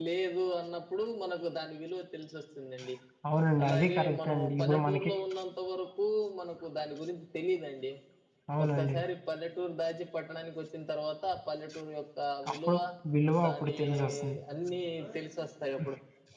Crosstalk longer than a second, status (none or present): present